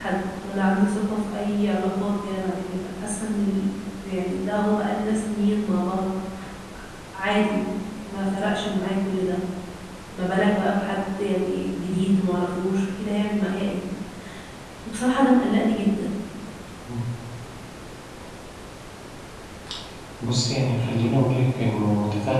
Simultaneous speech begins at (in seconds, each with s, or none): none